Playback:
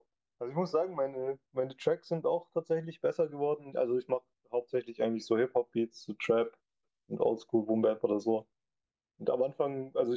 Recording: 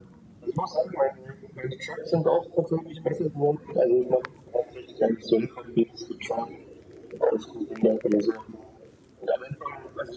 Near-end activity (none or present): none